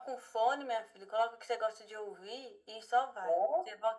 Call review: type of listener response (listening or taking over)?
taking over